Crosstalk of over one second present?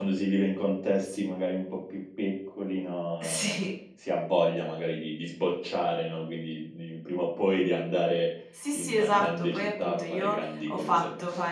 Yes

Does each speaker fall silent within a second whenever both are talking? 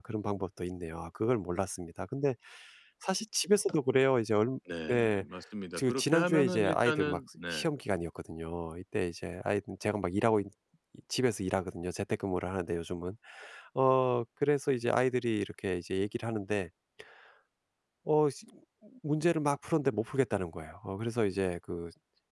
No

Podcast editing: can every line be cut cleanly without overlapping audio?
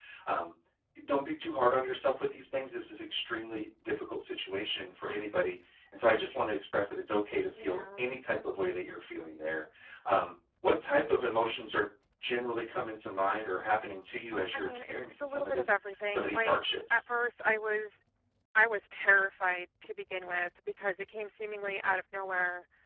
No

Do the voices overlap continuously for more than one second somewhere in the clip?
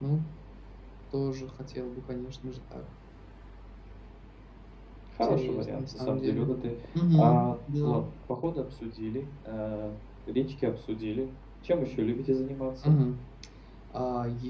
Yes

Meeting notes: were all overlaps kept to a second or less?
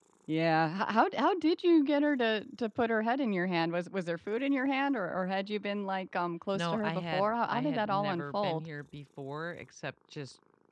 No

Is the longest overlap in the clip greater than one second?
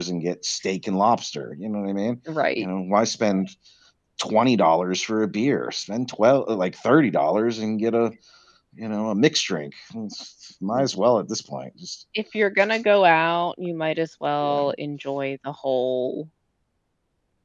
No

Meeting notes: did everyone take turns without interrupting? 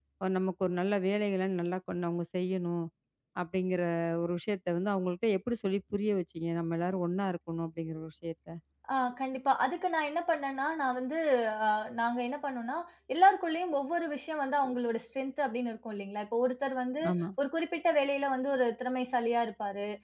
Yes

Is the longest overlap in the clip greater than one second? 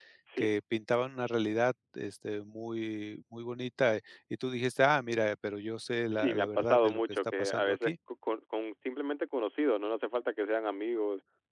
Yes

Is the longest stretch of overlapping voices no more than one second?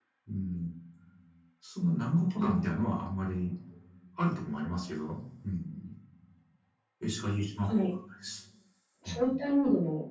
Yes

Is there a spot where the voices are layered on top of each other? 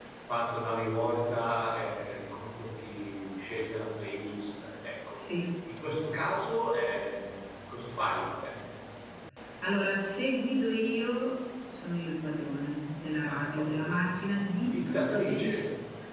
Yes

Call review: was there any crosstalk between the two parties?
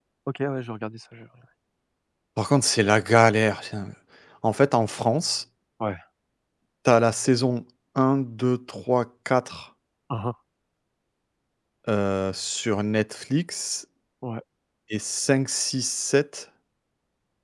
No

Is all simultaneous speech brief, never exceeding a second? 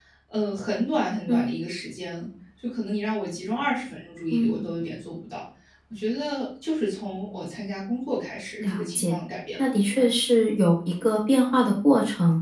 Yes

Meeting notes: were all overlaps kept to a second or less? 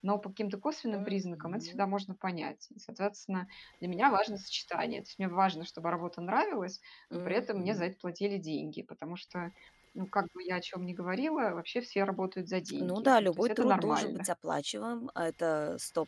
No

